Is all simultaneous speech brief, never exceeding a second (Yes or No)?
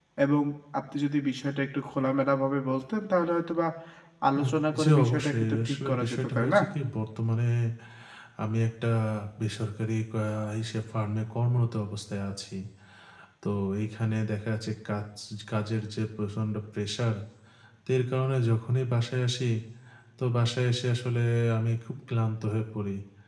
No